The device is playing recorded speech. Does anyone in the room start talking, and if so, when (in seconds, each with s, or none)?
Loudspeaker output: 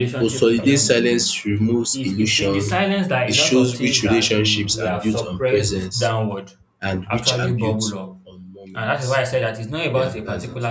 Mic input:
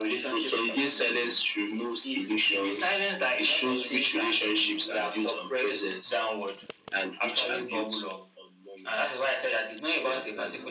none